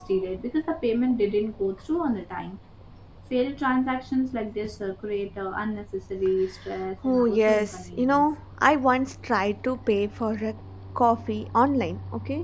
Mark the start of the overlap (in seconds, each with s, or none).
7.0 s